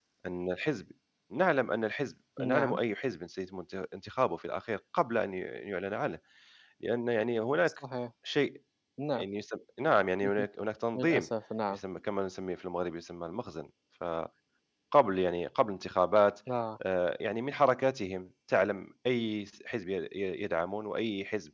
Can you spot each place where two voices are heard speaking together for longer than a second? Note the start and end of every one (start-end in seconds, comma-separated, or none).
none